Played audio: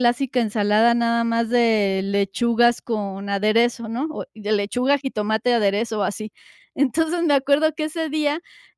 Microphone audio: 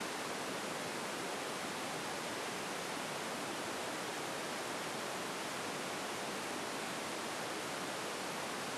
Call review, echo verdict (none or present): none